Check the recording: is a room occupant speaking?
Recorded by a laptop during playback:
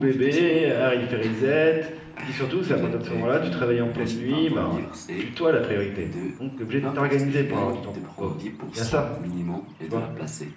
Yes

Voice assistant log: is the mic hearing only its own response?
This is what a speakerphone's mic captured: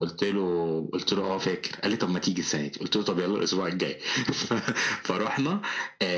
Yes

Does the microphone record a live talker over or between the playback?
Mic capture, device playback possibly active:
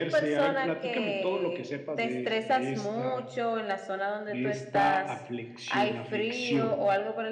No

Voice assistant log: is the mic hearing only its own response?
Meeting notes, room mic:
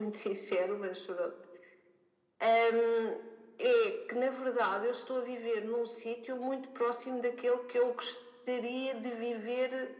Yes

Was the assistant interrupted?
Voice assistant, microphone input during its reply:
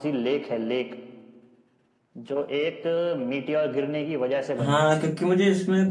Yes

